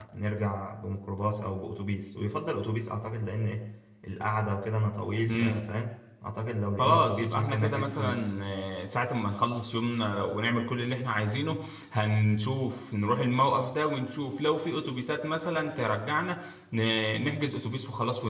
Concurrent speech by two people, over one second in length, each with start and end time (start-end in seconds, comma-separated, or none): 6.8-8.3